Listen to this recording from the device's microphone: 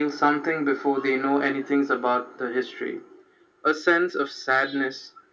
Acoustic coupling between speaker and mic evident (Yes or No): Yes